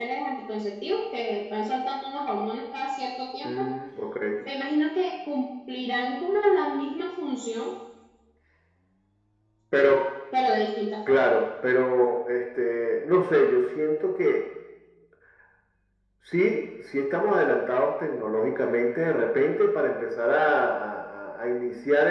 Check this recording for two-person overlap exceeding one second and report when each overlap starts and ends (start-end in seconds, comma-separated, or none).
none